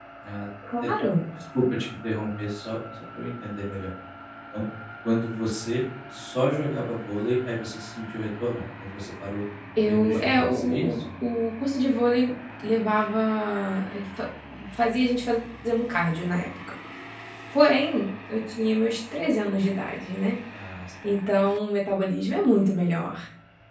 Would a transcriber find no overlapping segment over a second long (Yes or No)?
No